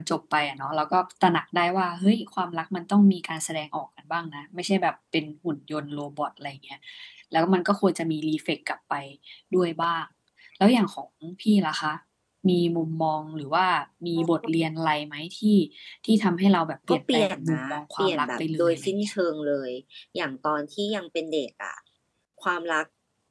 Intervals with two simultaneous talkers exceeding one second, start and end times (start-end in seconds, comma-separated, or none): 16.9-19.1